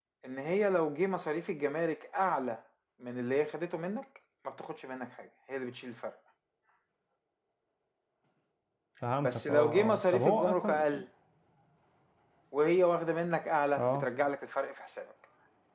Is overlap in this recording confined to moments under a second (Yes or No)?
No